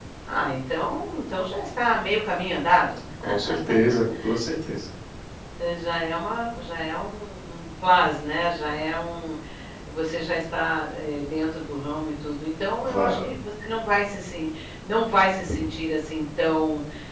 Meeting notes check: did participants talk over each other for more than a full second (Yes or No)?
No